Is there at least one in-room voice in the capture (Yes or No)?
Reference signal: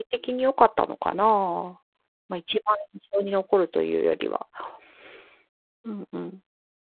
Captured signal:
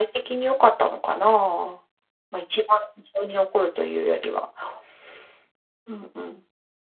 No